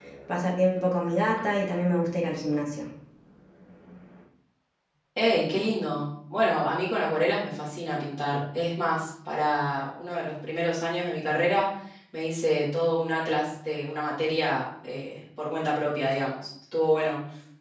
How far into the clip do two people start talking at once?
none

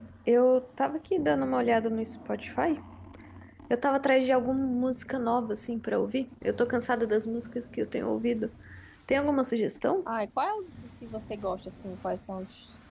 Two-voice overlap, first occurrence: none

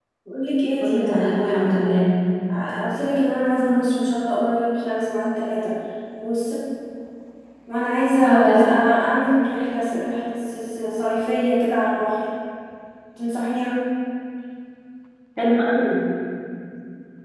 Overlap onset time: 0.8 s

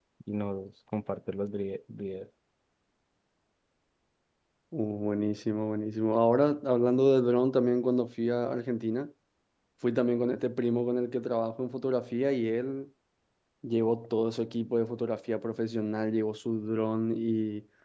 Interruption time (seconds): none

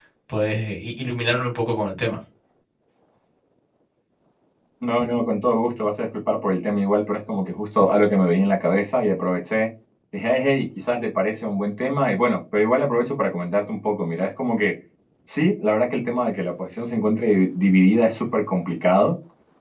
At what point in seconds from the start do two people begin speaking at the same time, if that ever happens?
none

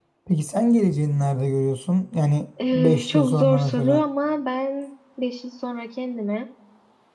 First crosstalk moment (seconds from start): 2.6 s

